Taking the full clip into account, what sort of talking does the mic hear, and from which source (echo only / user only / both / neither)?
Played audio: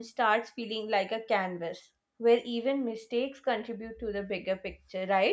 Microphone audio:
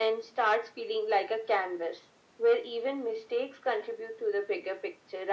echo only